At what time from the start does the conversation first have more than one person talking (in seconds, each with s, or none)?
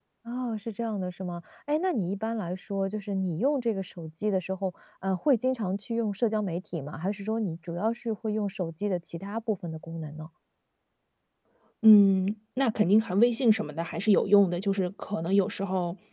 none